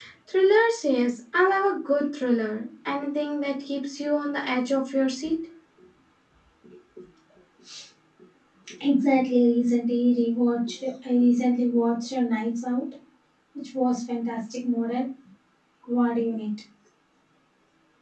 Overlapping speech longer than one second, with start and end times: none

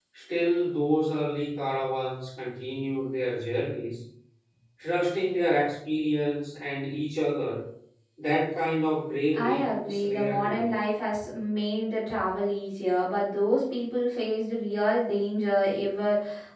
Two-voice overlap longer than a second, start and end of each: 9.3-10.7

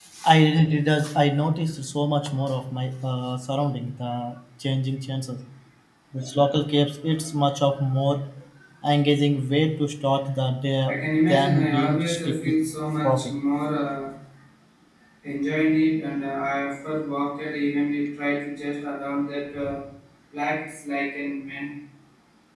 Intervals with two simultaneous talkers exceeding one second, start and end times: 11.3-12.6

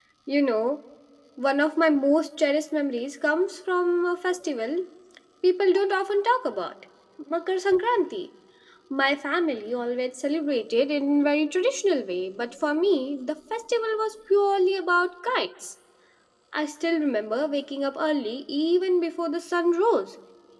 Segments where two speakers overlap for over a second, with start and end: none

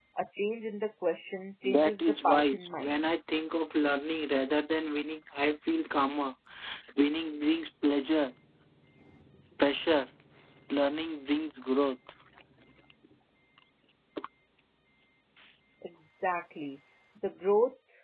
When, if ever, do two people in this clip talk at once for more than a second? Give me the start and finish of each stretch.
1.6-2.9

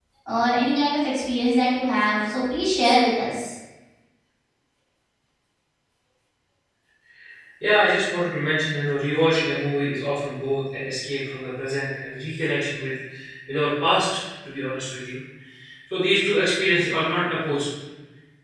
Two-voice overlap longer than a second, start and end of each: none

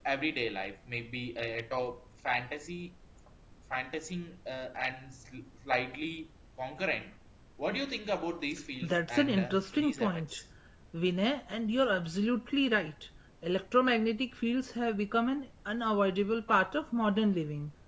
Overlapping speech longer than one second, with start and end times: 8.8-10.4

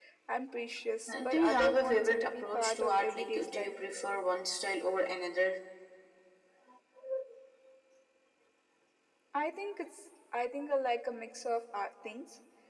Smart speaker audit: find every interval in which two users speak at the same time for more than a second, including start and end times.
1.1-3.7

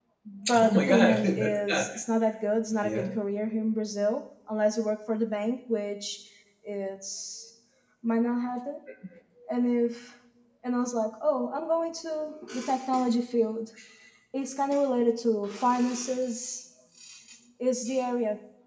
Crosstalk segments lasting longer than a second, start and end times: 0.6-1.8

